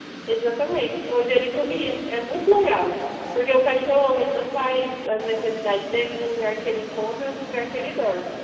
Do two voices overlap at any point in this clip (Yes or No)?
No